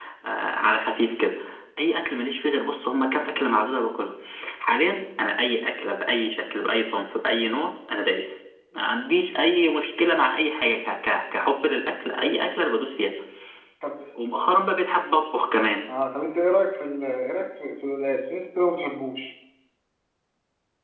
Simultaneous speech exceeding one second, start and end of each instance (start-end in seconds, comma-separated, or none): none